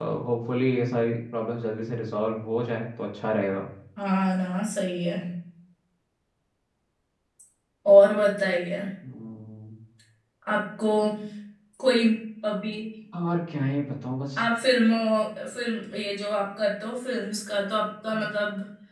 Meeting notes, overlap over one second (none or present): none